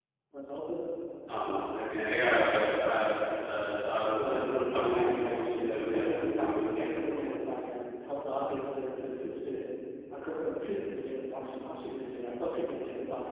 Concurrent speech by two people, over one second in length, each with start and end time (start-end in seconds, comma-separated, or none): 5.0-7.2